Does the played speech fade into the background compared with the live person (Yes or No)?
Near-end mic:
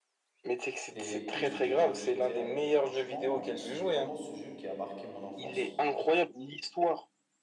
No